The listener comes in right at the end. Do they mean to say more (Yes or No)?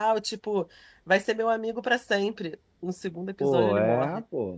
Yes